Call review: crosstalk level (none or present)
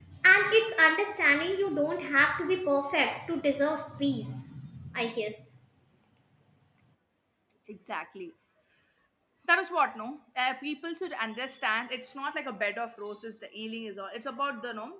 none